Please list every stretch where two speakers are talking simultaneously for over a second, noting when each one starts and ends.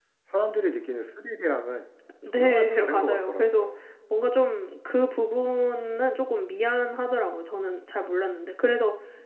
2.4-3.7

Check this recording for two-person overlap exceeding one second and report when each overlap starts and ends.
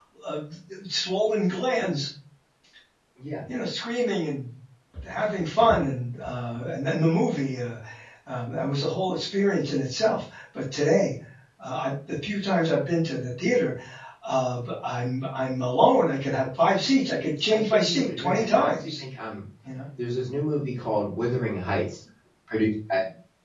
17.5-18.9

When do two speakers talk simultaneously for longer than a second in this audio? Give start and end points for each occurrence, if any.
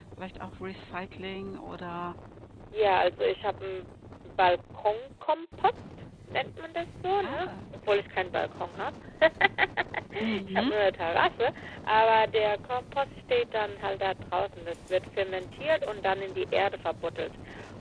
none

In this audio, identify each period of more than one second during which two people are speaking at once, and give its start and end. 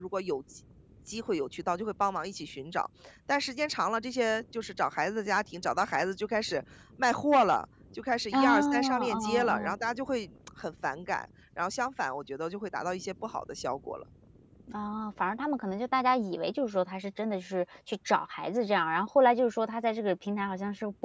8.3-9.8

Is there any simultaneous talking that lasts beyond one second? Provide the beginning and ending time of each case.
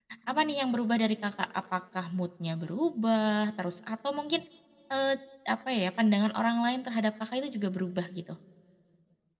none

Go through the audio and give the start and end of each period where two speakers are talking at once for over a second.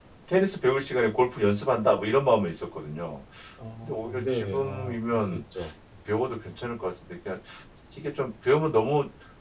3.8-5.4

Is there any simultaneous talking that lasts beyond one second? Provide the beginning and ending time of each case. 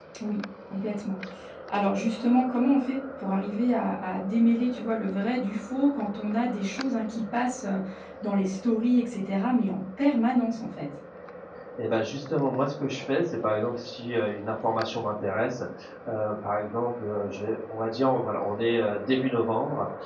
none

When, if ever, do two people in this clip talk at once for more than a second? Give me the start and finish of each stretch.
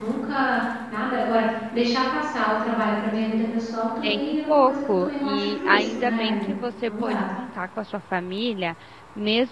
4.0-7.2

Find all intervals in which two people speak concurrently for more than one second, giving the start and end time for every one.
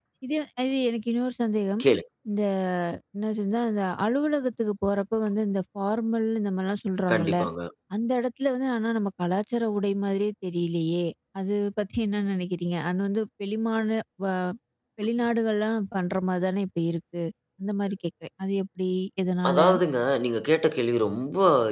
none

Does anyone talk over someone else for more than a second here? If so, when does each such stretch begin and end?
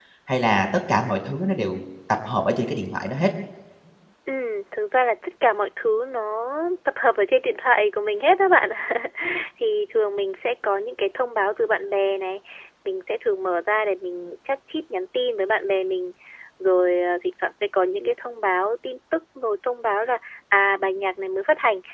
none

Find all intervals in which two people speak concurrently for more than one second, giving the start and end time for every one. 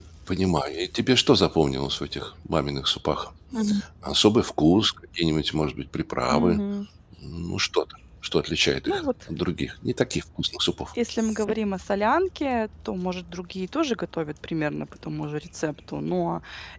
none

